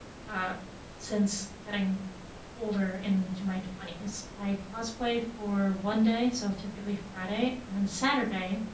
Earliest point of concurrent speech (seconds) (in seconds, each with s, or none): none